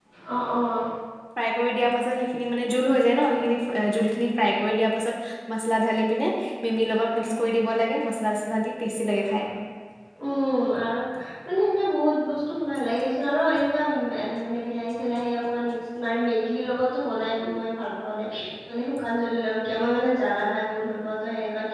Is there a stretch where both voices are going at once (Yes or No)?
No